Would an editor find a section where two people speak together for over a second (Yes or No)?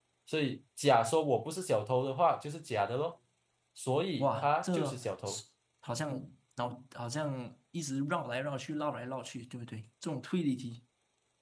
Yes